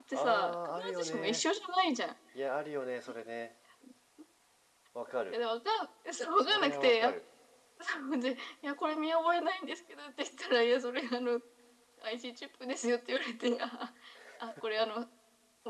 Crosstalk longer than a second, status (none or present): present